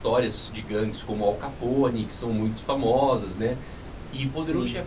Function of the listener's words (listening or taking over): listening